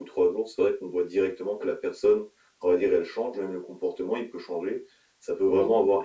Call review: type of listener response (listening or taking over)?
listening